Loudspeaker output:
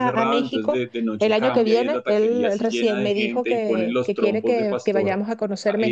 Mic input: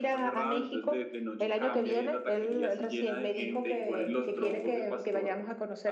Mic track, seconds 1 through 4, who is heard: echo only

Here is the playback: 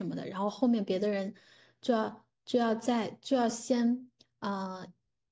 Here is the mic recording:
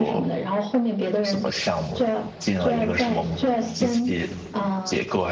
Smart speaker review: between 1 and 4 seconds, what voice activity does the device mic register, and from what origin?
both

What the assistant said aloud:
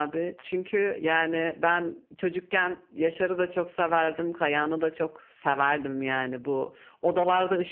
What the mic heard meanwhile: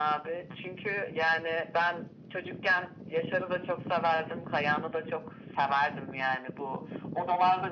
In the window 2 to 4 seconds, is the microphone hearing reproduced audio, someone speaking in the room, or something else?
echo only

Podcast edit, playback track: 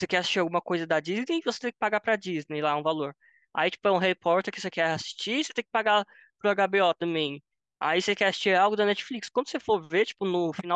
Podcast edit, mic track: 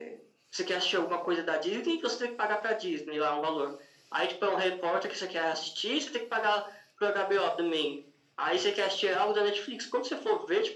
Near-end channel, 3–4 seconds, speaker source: echo only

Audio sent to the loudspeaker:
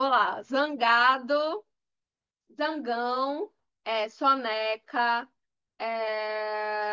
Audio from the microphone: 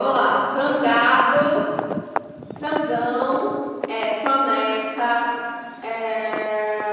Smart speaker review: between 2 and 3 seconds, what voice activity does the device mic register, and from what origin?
echo only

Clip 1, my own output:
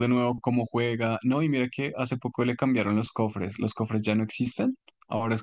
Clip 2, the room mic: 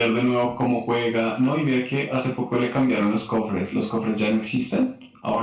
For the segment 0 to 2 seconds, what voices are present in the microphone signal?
echo only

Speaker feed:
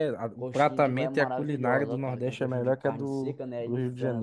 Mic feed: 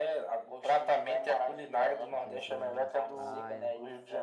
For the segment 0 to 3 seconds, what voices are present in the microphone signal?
both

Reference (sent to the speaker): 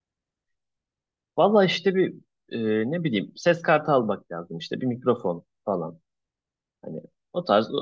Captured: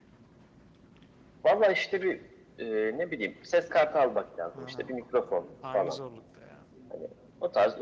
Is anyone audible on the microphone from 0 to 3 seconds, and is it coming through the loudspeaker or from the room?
echo only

